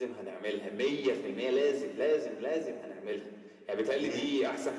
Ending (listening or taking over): listening